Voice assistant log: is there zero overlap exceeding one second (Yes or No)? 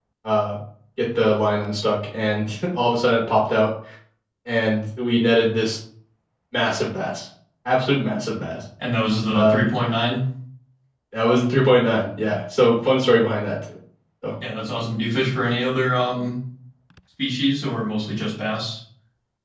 Yes